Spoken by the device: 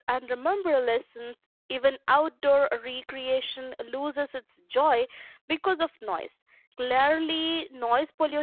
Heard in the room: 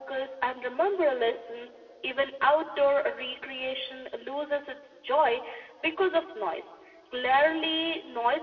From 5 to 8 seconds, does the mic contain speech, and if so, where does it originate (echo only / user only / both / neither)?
echo only